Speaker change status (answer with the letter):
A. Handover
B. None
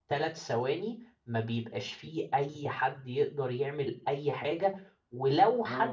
B